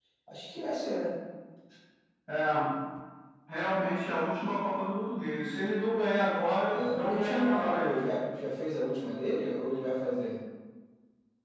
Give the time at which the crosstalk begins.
7 s

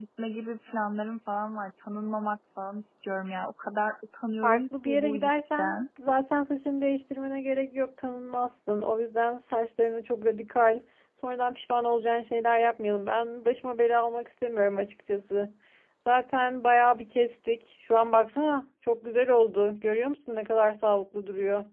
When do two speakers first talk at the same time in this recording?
4 s

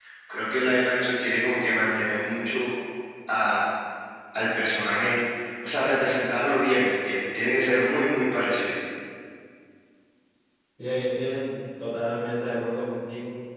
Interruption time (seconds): none

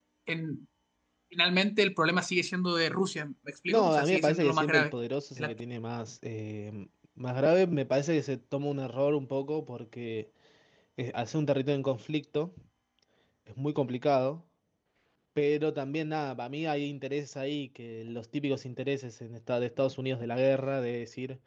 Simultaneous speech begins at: 4 s

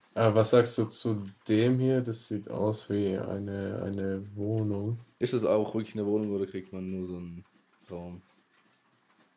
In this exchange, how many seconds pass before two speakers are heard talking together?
none

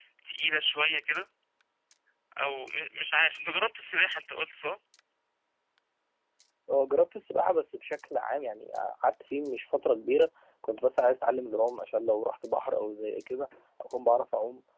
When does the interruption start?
none

